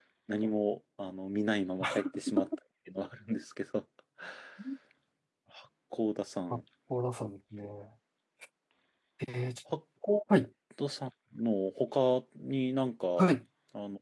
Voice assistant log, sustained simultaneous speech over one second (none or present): none